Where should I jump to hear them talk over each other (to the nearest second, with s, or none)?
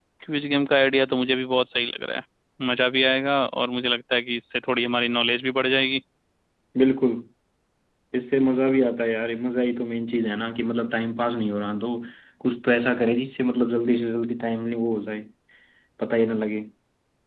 none